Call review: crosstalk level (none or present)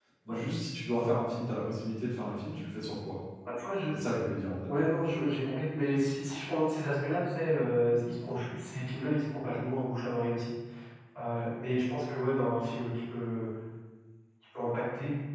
none